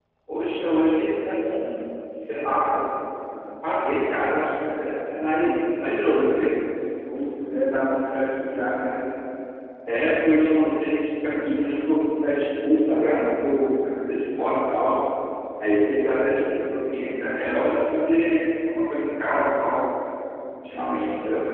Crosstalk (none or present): none